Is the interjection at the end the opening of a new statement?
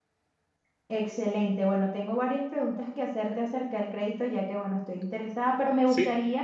No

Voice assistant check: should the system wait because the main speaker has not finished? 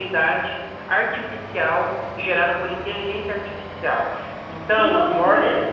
Yes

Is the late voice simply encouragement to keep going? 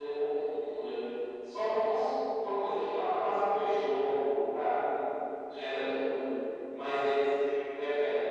Yes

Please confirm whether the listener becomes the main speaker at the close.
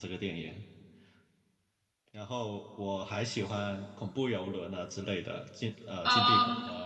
No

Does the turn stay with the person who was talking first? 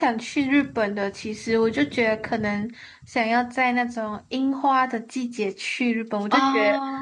Yes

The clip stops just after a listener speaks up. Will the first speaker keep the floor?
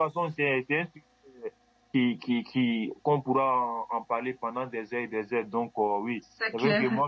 Yes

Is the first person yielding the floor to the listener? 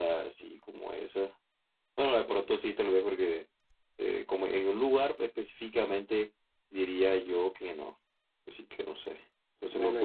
Yes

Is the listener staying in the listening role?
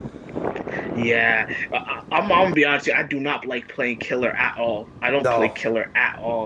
Yes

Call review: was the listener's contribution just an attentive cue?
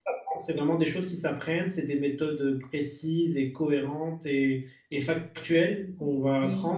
Yes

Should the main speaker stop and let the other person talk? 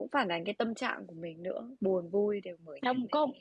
Yes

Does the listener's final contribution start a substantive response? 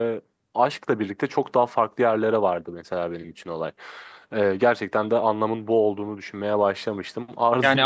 Yes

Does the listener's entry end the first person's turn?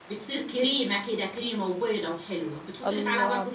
Yes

